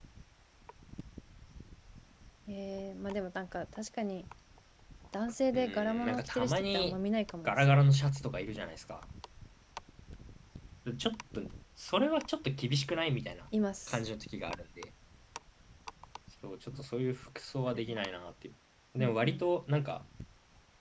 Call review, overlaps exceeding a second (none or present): present